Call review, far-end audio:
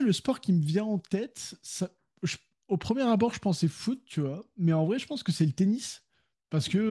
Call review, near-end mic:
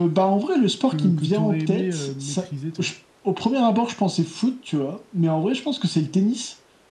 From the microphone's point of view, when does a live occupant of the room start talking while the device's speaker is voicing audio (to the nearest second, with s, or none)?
1 s